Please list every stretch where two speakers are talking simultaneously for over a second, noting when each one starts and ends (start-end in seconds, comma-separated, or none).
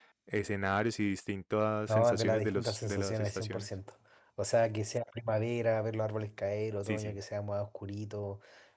1.9-3.7